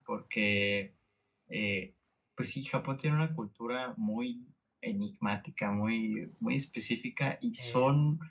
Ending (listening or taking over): listening